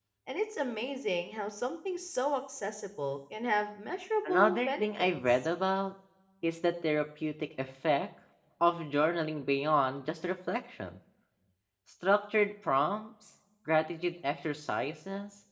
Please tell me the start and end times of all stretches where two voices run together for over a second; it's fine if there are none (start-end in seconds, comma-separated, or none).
4.2-5.5